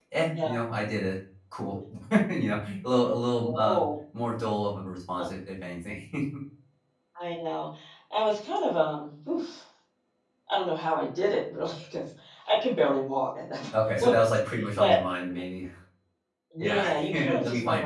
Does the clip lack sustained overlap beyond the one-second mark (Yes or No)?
No